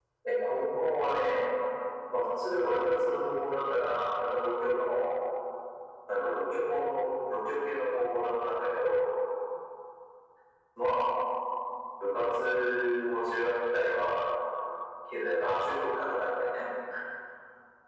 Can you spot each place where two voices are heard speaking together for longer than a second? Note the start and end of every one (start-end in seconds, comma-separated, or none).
none